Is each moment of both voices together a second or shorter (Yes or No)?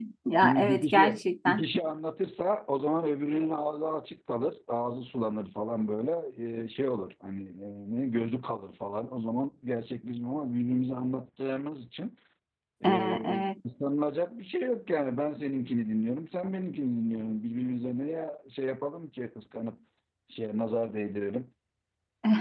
No